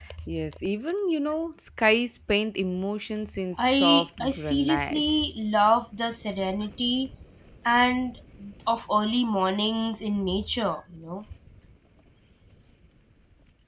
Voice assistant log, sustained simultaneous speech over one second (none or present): present